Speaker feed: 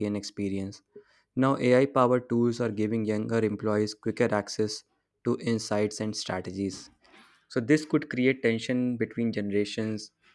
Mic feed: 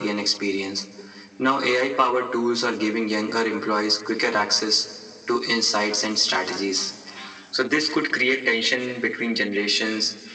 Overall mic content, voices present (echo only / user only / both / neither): echo only